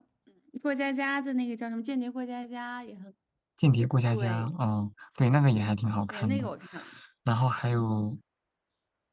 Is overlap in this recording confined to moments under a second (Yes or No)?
Yes